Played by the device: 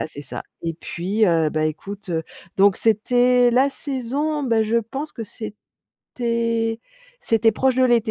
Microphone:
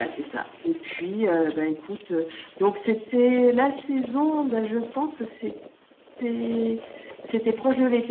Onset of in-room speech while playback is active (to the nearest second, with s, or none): none